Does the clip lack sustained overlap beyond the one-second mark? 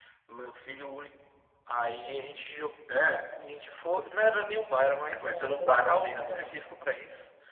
No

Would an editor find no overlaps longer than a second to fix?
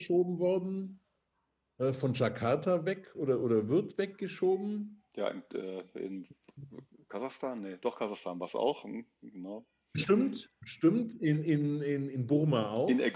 Yes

